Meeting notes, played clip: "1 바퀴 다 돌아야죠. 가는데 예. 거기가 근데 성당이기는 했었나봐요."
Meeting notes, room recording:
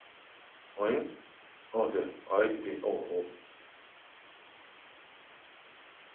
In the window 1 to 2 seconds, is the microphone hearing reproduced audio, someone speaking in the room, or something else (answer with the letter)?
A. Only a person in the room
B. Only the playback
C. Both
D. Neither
A